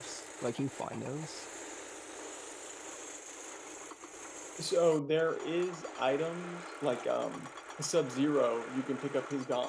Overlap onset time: none

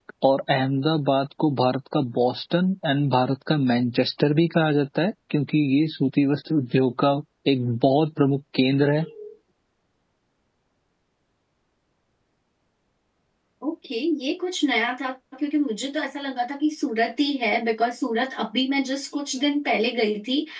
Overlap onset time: none

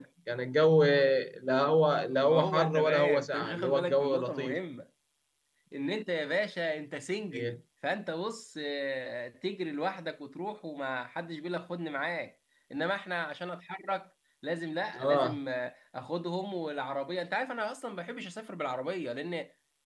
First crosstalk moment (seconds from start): 2.2 s

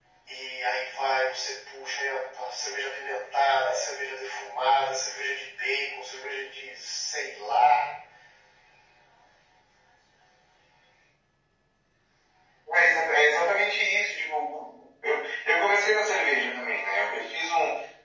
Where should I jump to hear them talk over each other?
none

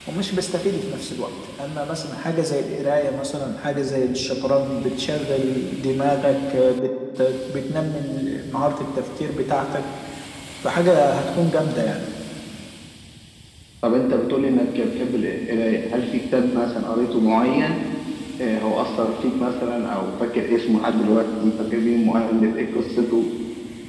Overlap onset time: none

